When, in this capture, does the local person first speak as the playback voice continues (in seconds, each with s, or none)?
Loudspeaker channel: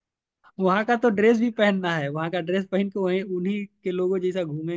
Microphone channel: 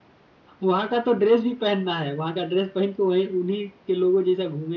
none